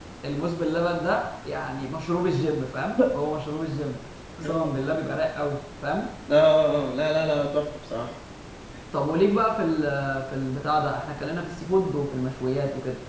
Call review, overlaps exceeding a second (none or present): none